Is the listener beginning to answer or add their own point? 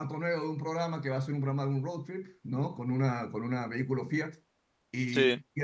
No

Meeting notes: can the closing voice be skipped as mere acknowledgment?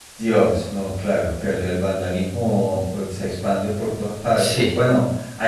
Yes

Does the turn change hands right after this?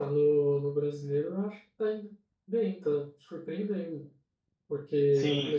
No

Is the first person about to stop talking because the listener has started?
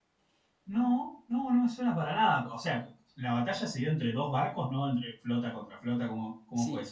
Yes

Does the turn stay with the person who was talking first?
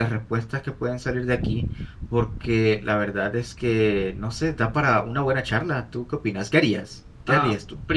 No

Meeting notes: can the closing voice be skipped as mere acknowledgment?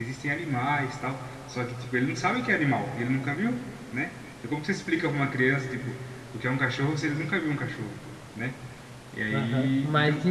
No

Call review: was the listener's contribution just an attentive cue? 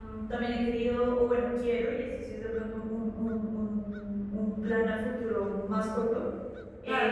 No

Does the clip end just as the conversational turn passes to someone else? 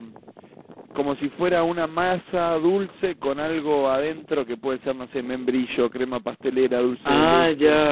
Yes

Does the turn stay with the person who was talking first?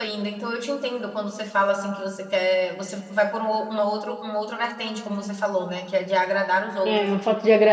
No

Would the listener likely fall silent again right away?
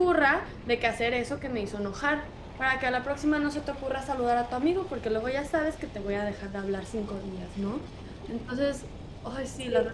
No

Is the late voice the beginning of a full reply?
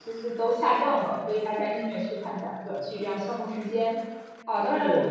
No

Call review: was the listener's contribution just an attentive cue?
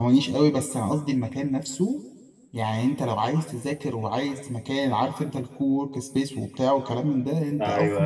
Yes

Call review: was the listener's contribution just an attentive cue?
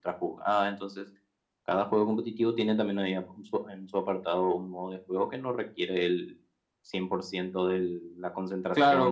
No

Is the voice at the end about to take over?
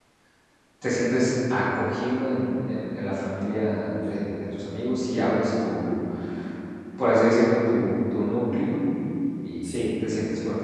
No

